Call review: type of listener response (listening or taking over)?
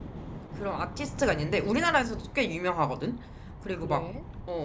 listening